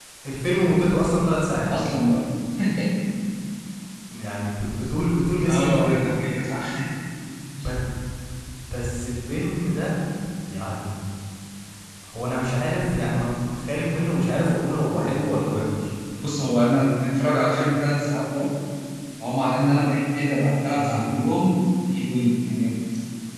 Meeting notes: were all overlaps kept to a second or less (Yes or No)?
Yes